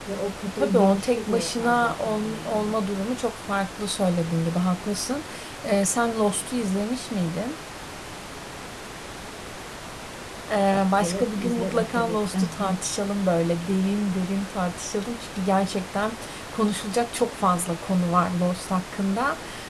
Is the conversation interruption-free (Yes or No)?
No